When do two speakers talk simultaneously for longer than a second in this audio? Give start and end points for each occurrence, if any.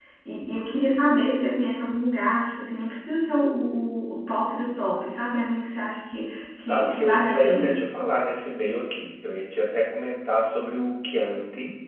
6.6-7.8

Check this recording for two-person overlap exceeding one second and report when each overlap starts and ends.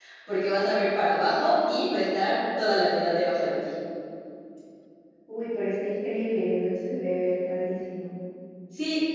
none

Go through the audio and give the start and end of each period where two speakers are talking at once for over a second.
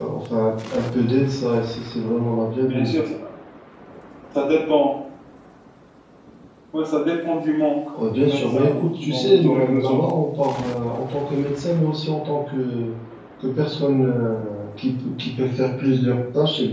8.1-10.0

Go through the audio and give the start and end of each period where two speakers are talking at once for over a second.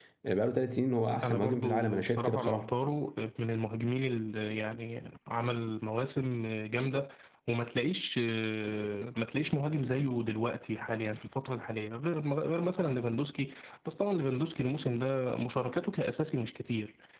1.2-2.7

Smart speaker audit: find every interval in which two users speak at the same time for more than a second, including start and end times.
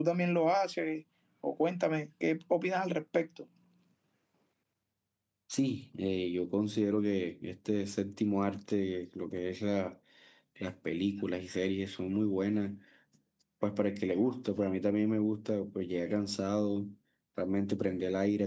none

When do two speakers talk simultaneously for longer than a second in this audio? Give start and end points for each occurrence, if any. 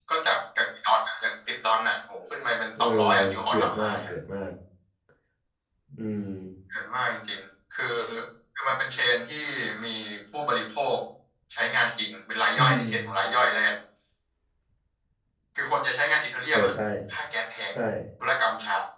2.8-4.1

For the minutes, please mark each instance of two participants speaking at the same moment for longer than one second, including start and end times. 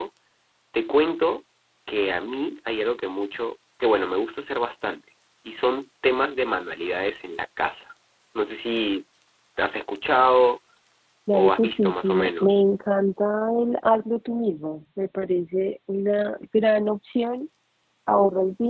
11.3-12.6

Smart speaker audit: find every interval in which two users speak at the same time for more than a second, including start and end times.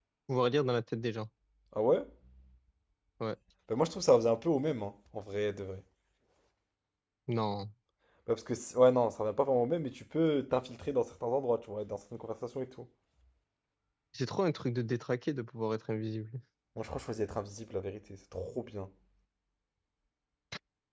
none

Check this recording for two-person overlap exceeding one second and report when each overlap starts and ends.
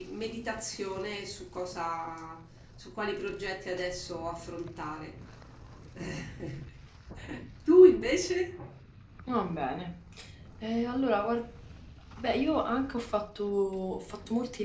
none

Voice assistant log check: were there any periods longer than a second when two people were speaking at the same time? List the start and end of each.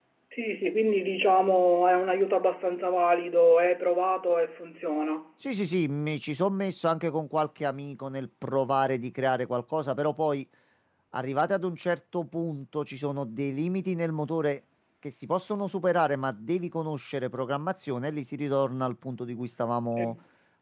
none

